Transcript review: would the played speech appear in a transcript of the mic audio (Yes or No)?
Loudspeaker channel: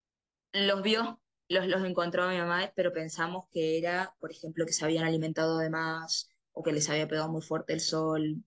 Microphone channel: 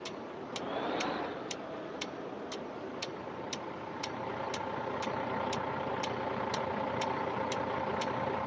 No